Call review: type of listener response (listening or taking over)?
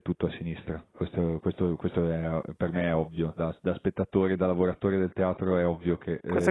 taking over